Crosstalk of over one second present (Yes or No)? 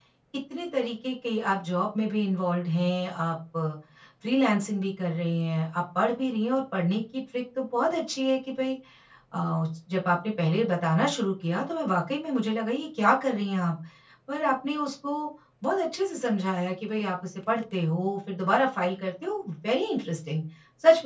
No